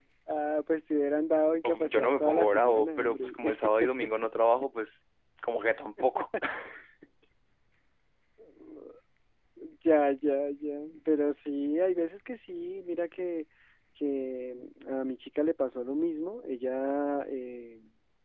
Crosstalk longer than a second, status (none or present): present